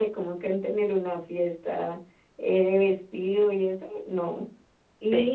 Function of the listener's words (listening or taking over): listening